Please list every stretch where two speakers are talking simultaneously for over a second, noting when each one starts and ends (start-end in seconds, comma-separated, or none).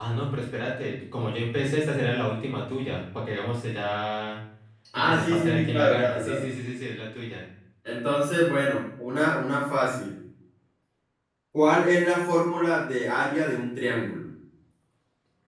5.0-6.4